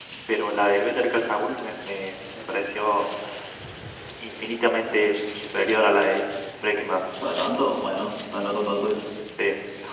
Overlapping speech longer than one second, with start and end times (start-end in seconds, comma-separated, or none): none